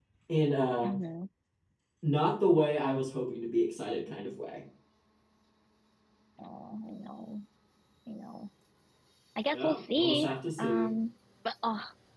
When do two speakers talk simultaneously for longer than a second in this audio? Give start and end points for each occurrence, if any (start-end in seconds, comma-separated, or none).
9.5-10.9